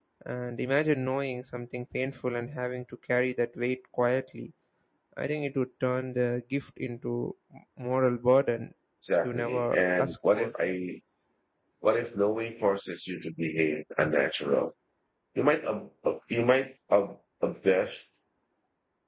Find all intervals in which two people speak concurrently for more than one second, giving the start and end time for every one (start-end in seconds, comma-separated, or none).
9.2-10.5